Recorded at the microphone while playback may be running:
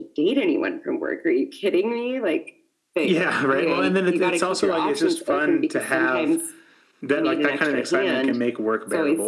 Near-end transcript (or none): none